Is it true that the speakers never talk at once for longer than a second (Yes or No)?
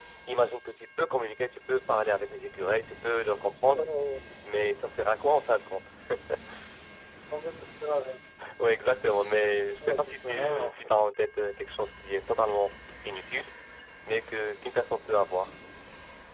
No